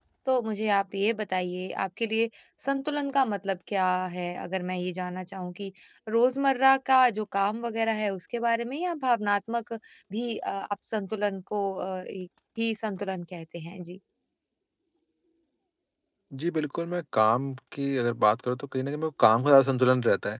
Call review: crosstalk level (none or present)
none